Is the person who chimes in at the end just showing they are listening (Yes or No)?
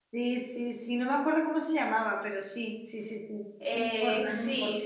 No